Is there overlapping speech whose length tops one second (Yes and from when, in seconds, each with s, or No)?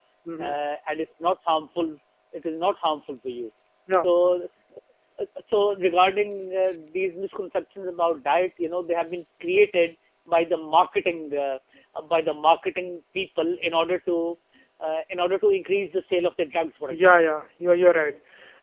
No